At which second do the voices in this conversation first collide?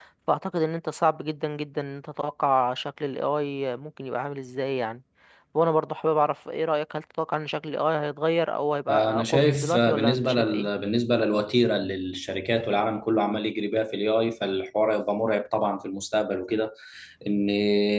8.9 s

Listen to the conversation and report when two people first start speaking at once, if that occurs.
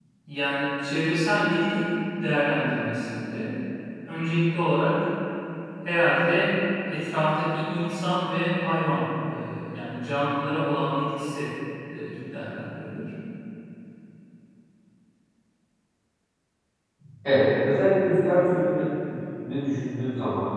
none

